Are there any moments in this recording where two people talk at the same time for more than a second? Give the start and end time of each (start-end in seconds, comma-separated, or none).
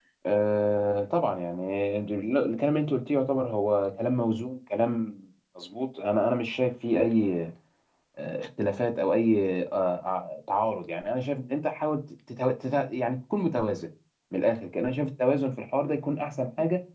none